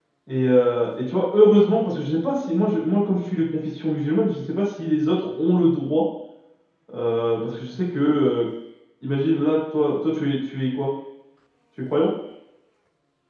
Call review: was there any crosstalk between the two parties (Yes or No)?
No